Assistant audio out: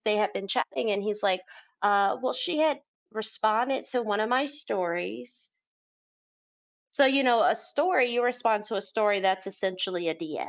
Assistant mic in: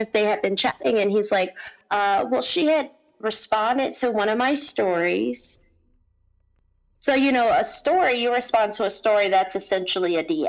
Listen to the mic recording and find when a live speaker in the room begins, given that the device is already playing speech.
none

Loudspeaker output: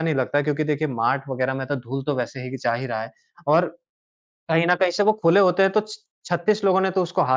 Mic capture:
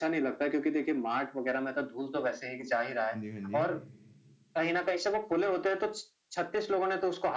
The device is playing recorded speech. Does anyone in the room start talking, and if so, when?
3.1 s

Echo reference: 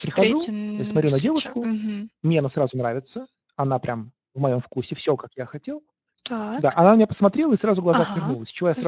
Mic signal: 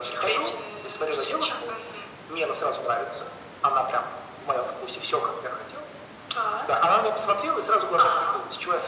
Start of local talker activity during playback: none

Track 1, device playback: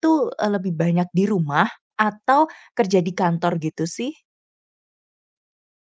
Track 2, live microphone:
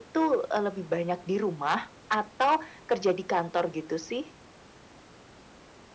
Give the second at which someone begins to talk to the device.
none

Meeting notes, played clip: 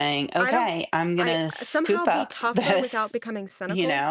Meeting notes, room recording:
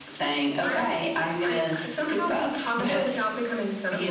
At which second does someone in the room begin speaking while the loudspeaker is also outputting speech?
none

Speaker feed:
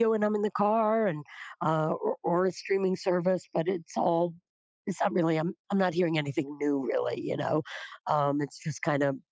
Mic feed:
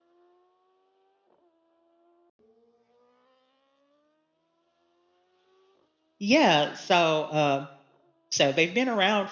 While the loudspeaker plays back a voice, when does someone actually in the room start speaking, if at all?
6.2 s

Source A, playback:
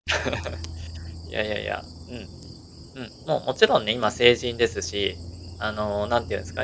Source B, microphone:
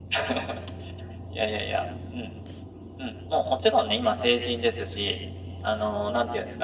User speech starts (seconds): none

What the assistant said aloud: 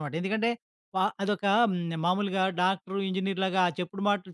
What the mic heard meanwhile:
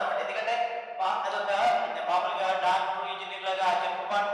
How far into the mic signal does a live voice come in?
none

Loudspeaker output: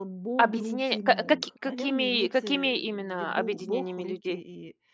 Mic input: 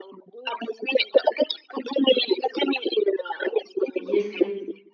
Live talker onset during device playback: 3.9 s

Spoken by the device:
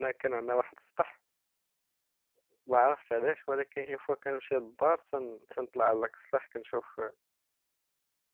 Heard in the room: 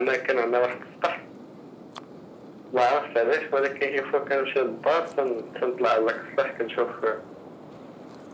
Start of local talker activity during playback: none

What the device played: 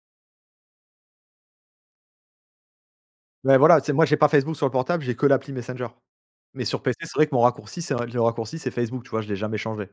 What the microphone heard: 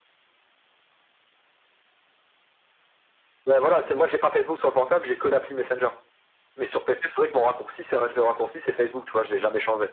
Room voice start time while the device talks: none

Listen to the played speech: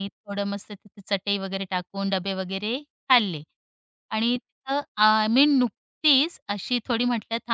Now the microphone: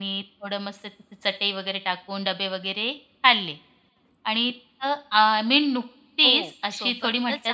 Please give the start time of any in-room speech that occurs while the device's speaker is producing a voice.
6.2 s

